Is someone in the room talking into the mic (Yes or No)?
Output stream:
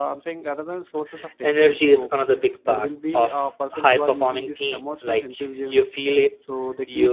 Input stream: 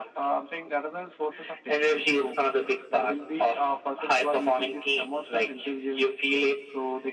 No